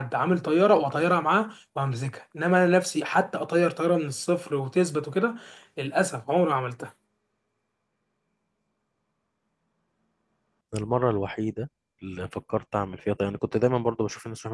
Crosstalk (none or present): none